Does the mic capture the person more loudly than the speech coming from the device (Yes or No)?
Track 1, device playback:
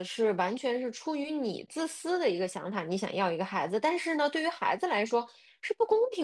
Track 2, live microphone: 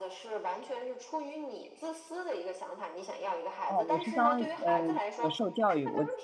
Yes